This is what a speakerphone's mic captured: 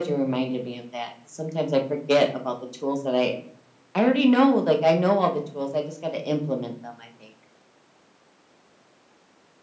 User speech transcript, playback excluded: none

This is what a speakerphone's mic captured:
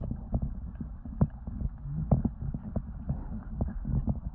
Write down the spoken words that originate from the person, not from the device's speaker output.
none

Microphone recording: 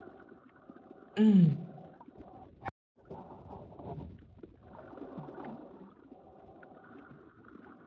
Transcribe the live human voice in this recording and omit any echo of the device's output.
음.

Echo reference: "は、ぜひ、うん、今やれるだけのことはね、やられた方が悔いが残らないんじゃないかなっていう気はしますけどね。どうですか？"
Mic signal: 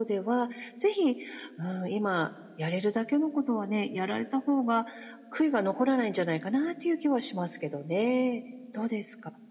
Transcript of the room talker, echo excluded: none

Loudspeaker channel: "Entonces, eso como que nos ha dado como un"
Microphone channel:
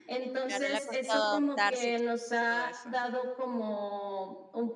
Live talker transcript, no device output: Claro, le ha costado adaptarse y todo eso.

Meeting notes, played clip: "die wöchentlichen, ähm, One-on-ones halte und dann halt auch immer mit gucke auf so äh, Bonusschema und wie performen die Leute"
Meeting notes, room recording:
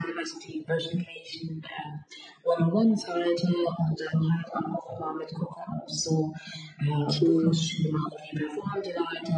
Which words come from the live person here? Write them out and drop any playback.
okay.

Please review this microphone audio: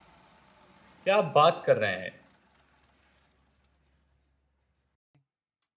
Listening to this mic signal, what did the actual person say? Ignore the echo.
क्या आप बात कर रहे हैं?

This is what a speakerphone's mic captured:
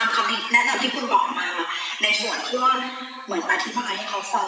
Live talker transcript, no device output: none

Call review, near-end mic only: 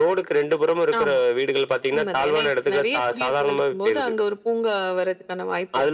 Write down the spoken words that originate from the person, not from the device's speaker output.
none

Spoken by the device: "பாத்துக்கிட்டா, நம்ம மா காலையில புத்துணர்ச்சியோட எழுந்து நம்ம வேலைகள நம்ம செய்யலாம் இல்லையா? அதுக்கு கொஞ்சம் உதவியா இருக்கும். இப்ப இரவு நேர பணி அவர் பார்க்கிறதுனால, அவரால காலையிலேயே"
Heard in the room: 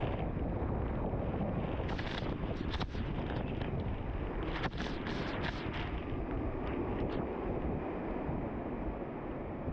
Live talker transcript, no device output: none

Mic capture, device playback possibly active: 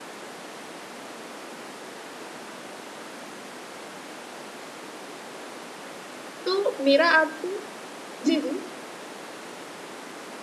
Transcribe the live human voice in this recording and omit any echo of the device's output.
तो मेरा आपको जी, जी।

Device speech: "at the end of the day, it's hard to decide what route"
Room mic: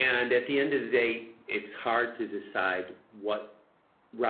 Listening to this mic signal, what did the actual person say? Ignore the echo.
none

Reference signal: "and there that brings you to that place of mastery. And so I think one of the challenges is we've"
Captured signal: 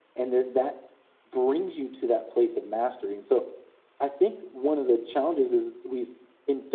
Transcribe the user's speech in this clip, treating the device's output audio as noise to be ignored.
none

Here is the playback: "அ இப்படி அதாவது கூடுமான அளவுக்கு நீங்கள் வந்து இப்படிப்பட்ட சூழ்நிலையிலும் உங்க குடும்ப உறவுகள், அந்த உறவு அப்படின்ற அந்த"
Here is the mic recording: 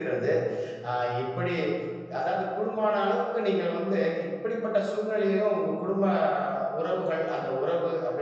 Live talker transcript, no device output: none

